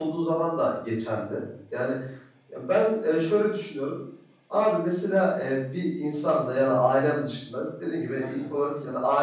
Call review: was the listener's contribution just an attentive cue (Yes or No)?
Yes